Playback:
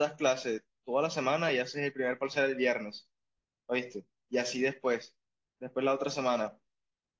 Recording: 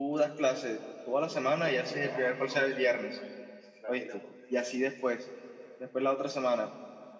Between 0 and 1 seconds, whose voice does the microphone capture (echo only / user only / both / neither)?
echo only